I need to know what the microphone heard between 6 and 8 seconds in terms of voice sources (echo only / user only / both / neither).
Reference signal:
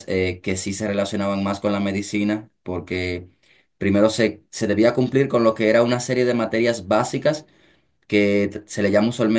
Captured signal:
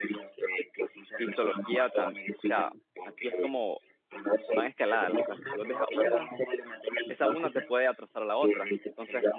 both